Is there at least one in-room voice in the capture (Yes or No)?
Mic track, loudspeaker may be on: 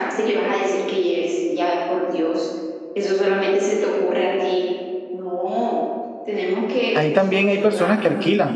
Yes